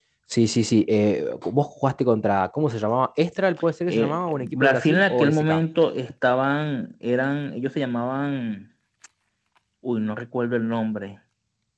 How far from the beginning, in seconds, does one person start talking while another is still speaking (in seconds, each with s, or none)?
3.9 s